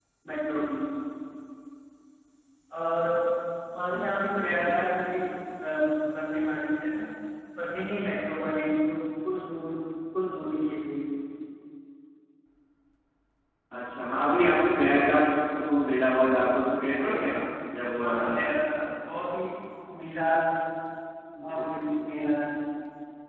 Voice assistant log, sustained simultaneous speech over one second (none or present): present